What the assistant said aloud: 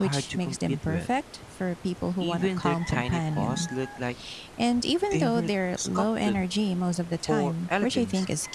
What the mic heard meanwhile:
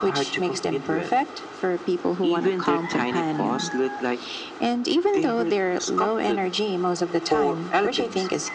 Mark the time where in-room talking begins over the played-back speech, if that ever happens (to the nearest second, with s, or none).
none